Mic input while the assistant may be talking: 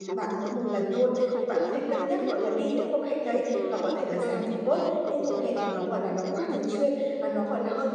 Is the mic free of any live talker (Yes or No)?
No